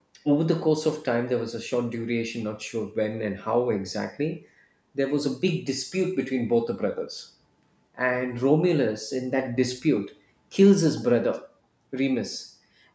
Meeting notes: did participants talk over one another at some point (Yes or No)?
No